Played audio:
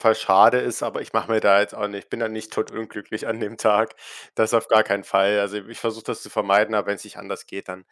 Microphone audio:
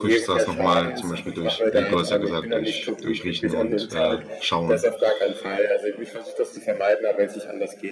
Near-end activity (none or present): present